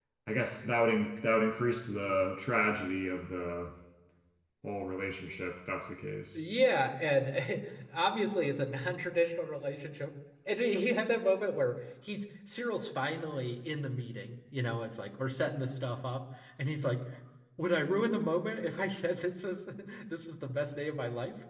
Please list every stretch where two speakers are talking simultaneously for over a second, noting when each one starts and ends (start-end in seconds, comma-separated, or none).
none